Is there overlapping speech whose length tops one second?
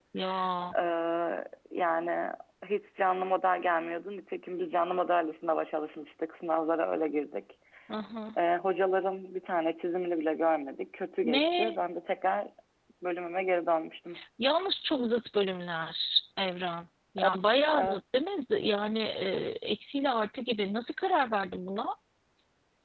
No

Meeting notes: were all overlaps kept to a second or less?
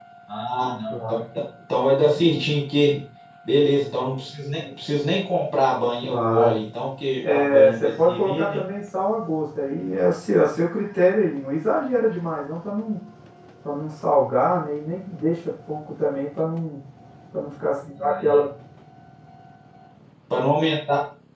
No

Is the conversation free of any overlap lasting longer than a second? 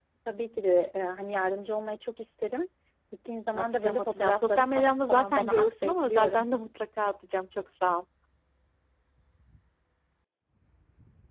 No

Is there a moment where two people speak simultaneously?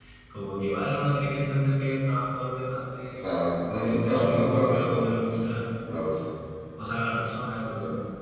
Yes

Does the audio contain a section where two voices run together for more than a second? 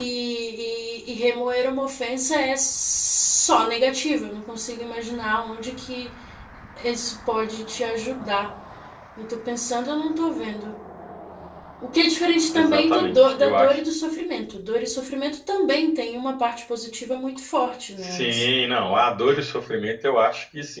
Yes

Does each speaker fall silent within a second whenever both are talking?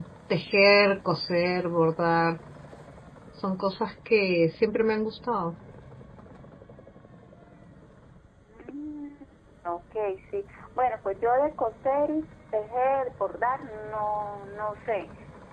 Yes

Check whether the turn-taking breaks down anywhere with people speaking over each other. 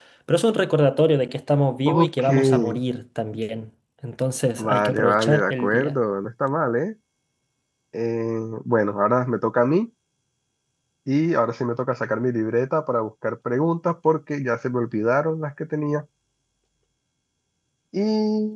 Yes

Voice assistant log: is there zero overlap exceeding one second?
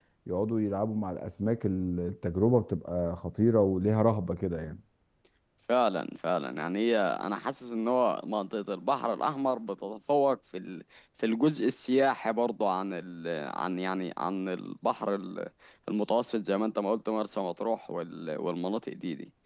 Yes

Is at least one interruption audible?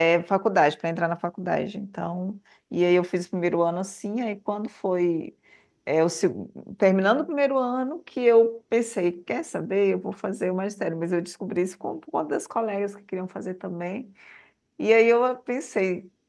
No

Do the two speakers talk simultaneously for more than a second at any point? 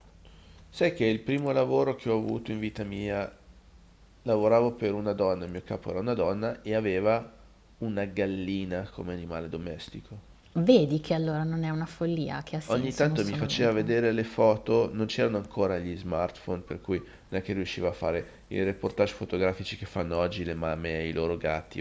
Yes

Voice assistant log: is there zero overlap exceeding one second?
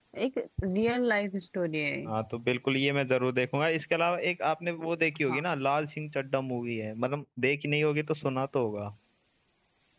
Yes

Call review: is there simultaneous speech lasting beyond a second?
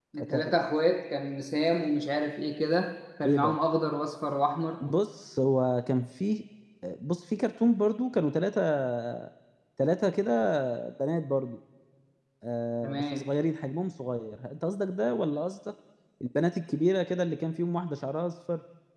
No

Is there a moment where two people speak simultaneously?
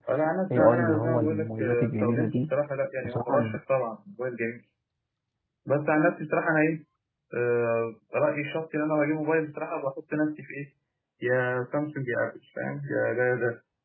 Yes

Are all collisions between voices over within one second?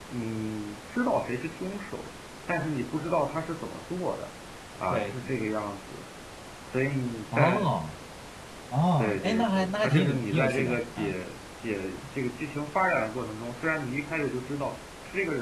No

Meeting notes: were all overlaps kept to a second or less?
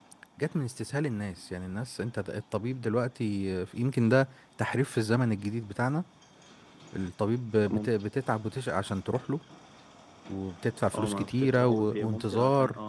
No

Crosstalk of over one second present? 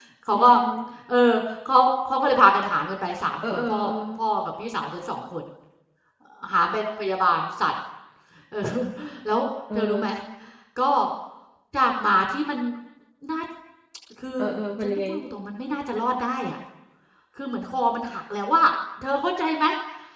No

